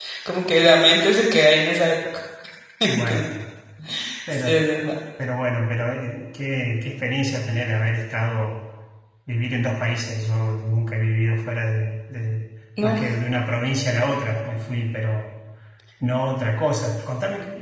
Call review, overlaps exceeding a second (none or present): none